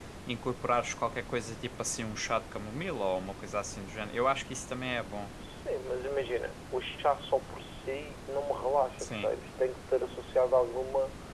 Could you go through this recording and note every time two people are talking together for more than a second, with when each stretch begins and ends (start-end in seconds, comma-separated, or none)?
none